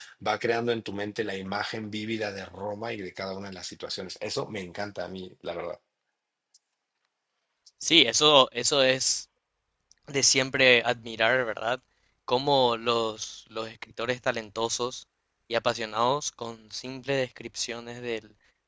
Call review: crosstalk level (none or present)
none